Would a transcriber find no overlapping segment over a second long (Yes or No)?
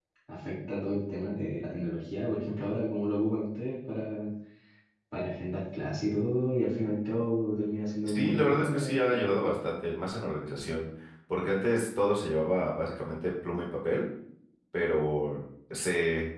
No